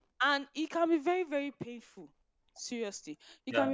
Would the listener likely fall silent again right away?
Yes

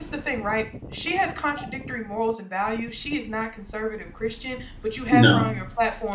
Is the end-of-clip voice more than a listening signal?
No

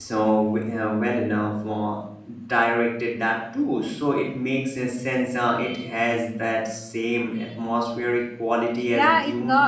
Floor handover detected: Yes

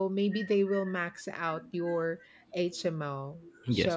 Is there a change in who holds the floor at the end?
No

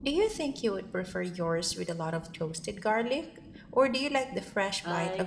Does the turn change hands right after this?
Yes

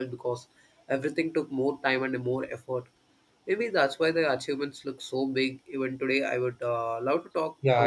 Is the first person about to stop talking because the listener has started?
Yes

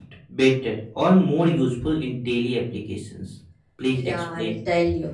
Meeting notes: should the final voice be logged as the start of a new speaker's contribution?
Yes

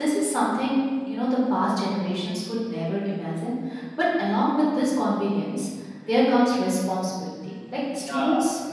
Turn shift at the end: No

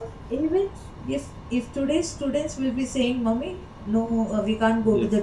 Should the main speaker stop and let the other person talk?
No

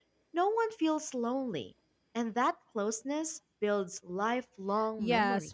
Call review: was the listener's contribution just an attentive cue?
No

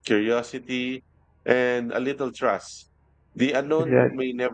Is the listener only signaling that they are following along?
Yes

